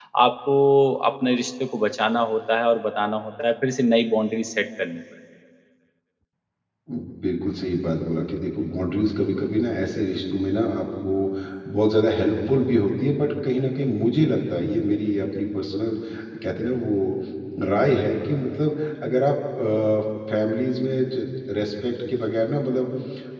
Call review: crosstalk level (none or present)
none